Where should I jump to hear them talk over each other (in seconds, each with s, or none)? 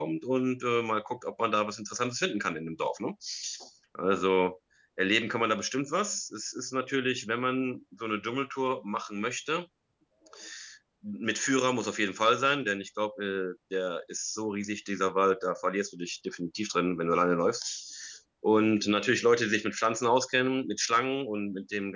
none